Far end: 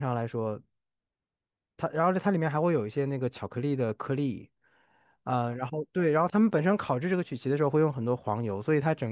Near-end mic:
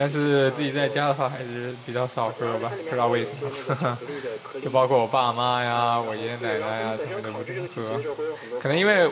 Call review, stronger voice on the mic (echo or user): user